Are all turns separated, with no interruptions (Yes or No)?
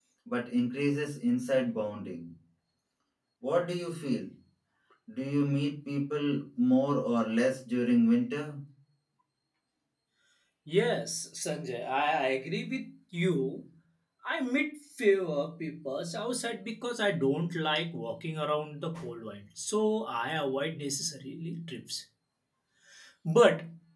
Yes